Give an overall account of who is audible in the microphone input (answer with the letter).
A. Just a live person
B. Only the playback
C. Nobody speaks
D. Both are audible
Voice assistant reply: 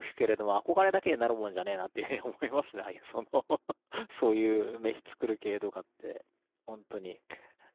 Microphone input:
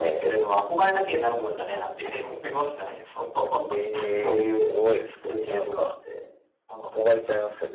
D